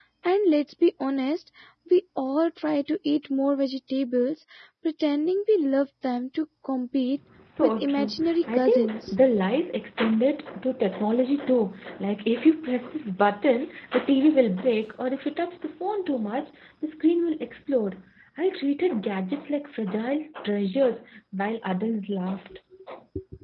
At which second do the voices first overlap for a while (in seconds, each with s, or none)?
7.4 s